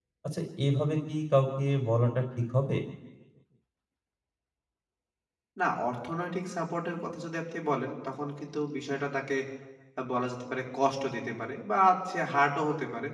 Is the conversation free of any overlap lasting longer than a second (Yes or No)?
Yes